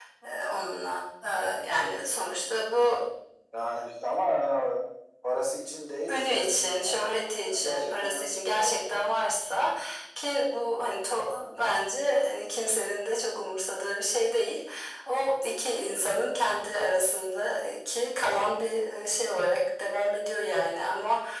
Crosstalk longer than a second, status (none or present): present